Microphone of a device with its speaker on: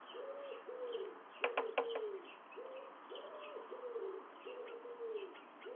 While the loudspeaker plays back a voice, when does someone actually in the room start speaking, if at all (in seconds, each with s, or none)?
none